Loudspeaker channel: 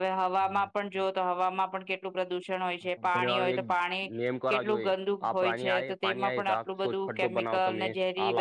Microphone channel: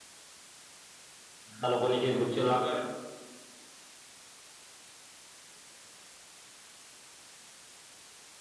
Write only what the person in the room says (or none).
બધા લોકોને કક વૃક્ષો લાગે